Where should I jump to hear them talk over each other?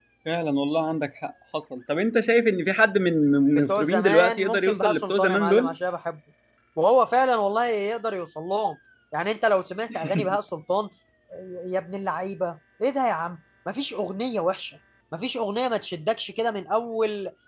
4 s

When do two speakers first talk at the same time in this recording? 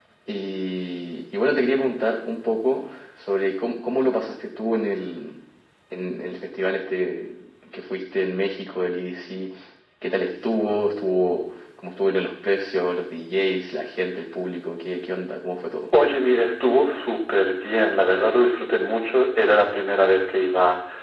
none

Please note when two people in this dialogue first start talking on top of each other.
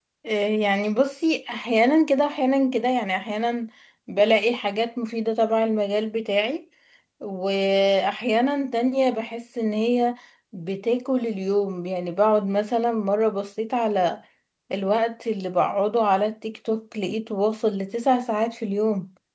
none

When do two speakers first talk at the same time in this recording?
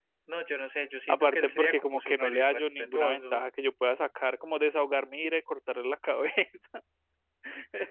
1 s

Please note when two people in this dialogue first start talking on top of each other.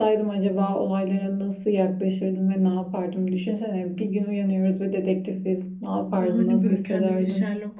6 s

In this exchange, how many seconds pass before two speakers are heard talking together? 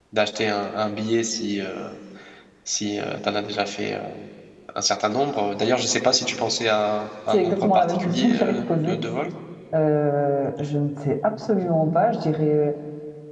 7 s

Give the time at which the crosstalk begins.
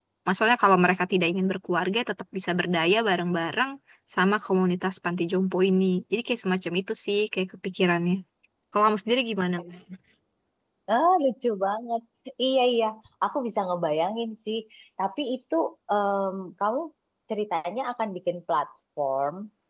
none

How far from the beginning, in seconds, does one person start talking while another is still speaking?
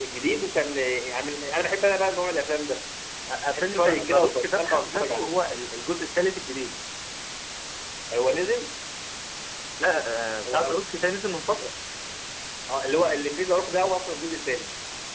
4 s

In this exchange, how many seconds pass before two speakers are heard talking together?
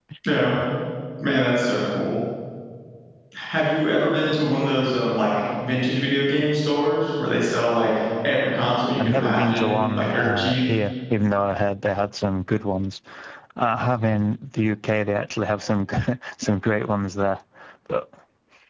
9 s

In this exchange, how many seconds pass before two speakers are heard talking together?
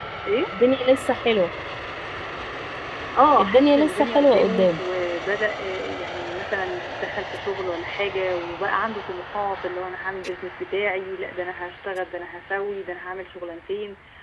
3 s

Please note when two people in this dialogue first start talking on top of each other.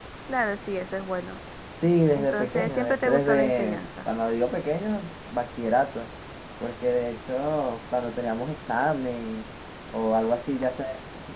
2 s

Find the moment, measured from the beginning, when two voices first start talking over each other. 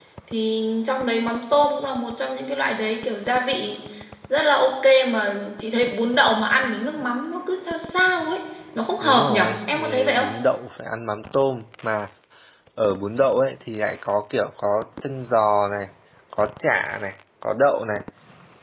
9 s

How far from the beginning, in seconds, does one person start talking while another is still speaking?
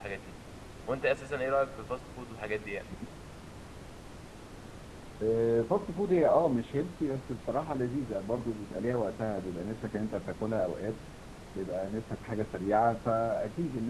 none

